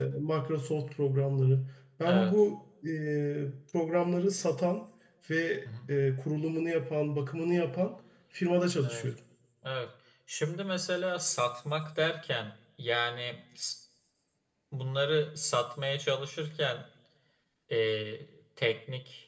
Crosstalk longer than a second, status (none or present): none